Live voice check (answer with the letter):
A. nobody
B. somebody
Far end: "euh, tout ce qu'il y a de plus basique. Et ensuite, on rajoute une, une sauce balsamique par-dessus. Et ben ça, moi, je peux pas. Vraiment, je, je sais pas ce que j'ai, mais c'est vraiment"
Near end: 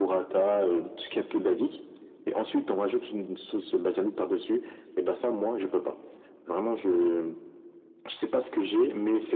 A